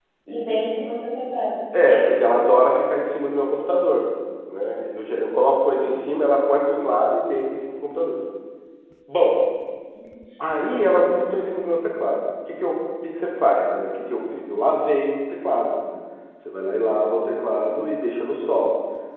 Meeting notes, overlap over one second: none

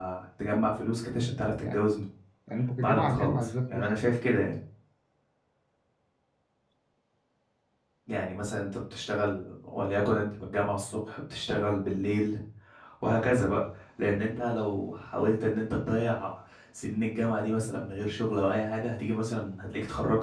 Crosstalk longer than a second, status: present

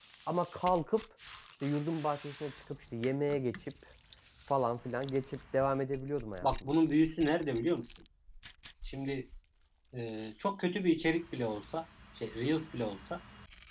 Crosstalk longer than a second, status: none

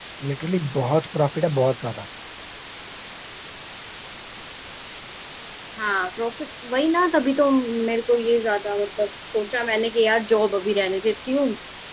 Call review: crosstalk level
none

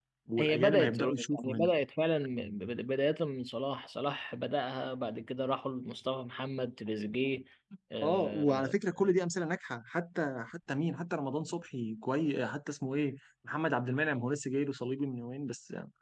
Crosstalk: present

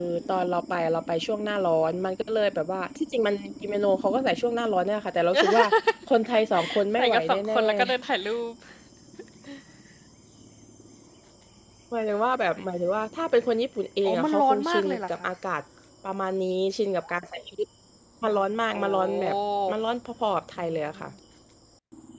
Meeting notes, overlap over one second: present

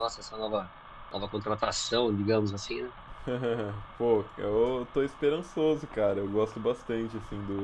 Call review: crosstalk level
none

